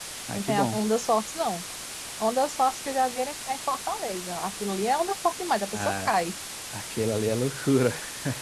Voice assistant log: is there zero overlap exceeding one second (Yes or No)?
Yes